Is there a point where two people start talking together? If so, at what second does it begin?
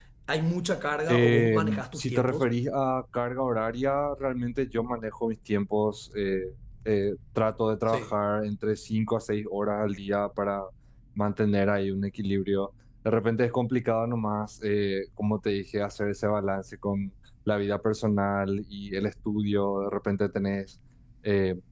1 s

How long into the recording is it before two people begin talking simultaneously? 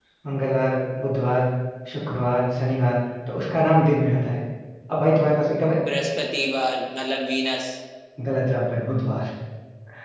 none

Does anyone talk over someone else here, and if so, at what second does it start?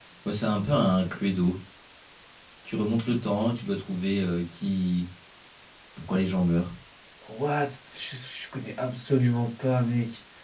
none

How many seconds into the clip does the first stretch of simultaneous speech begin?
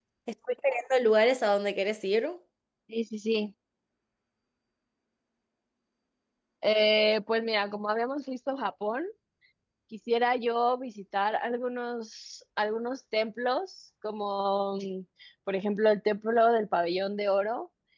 none

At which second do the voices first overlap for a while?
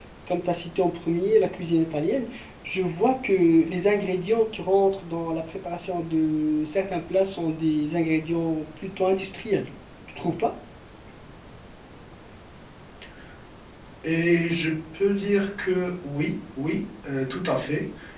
none

